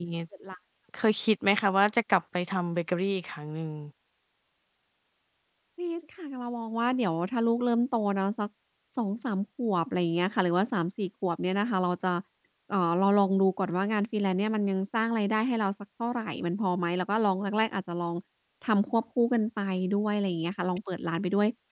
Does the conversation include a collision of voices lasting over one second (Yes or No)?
No